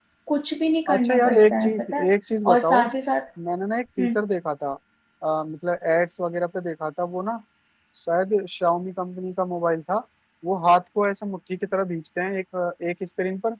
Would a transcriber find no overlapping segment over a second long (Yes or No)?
No